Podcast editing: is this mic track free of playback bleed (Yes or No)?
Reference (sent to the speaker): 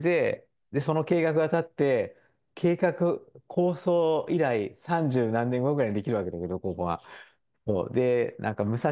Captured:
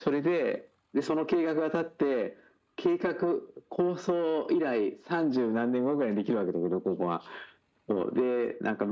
No